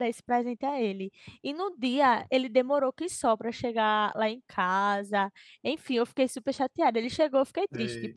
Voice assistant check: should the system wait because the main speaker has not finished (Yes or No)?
Yes